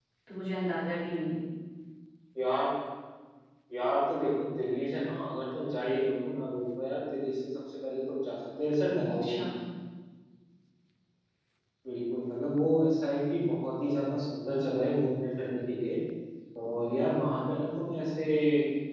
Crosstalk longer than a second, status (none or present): none